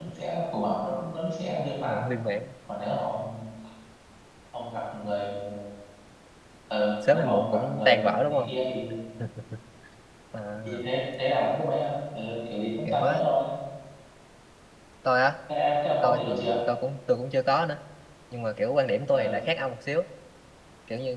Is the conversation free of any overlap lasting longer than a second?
No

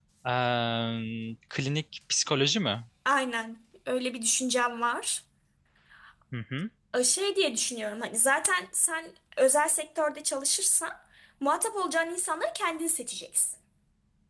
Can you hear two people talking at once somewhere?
No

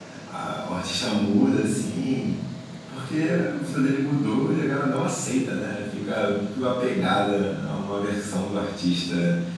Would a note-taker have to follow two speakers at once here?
No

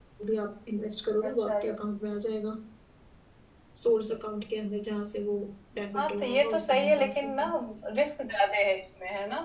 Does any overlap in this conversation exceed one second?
Yes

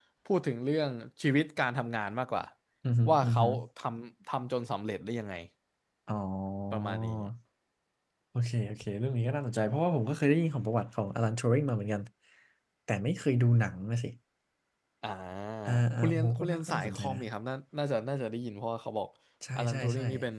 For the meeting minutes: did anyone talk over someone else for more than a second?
Yes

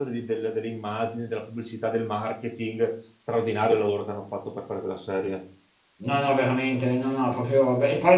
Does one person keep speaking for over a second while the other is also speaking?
No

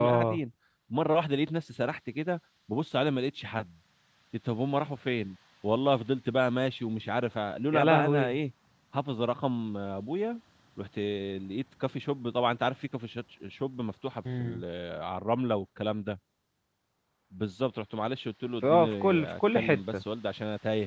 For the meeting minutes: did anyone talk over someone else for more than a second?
Yes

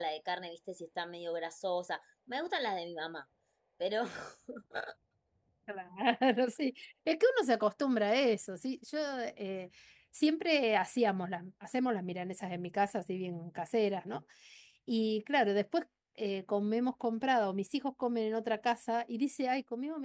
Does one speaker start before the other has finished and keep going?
No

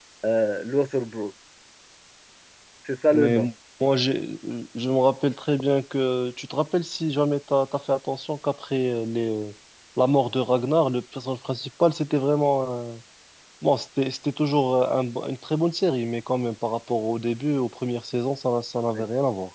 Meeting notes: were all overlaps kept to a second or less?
Yes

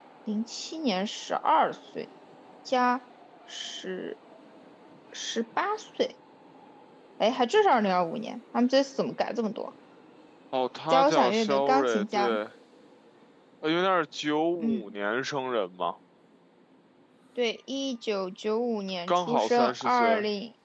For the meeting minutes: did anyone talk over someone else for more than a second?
Yes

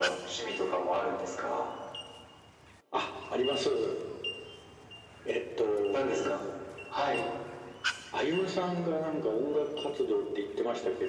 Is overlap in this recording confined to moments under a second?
Yes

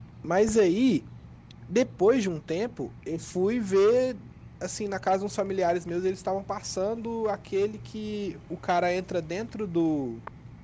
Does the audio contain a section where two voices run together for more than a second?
No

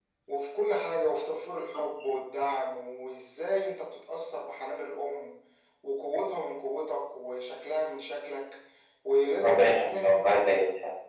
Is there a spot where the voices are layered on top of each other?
Yes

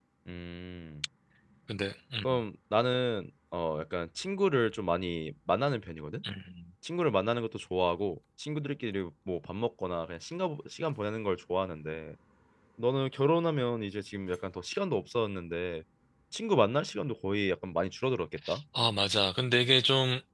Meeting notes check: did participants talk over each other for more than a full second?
No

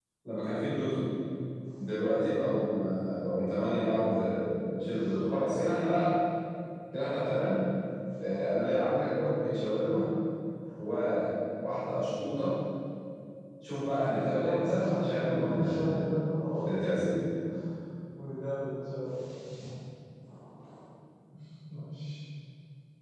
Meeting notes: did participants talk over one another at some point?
Yes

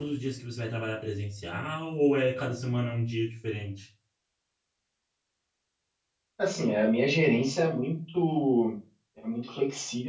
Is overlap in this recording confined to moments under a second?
Yes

